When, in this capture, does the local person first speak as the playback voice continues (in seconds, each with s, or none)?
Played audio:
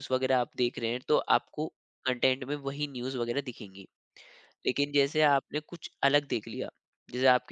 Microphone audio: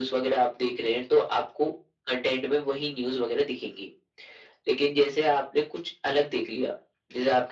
none